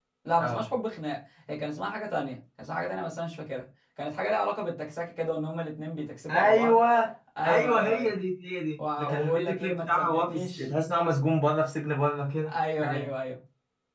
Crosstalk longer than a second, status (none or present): present